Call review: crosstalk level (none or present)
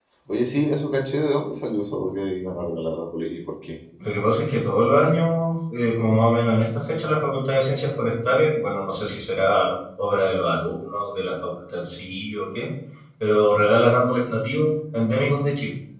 none